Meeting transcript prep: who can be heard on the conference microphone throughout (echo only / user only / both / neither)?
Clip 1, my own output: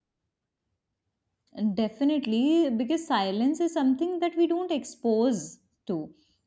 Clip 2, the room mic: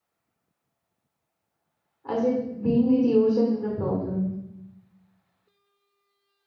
user only